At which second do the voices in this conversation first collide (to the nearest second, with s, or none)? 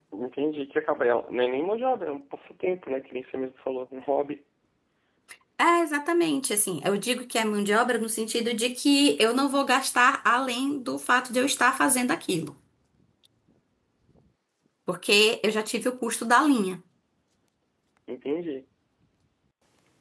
none